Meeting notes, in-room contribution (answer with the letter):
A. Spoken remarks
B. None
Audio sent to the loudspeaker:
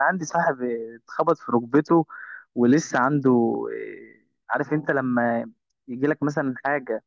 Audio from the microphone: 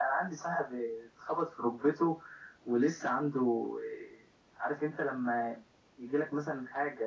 B